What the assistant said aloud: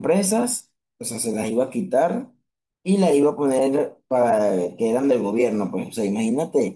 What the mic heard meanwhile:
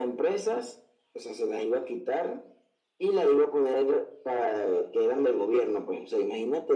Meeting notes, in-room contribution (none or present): none